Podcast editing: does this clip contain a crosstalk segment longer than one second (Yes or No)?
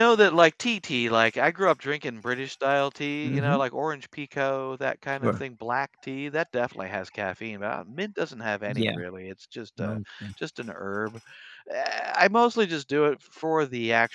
No